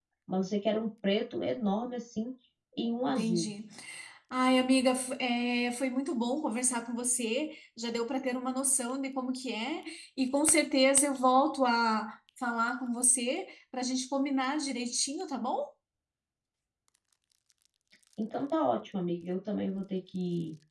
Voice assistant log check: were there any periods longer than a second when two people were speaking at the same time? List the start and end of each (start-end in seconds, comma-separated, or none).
none